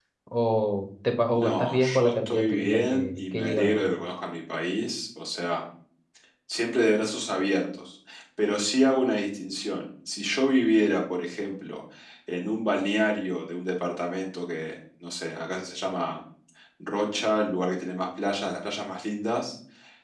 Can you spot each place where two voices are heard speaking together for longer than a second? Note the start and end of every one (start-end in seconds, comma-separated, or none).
1.4-3.9